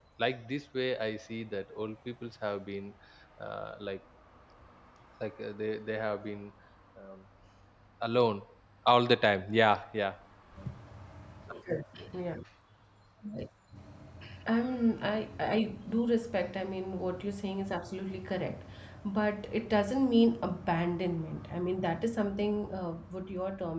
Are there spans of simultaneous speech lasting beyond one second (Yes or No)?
No